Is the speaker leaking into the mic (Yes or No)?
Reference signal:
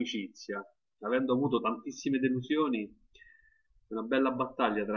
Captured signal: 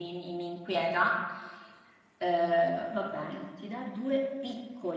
No